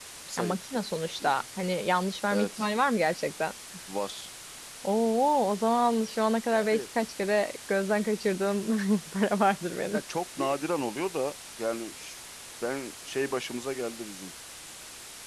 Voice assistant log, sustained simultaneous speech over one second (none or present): none